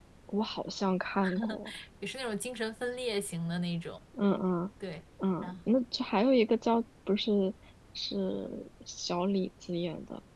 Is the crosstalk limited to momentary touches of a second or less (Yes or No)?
Yes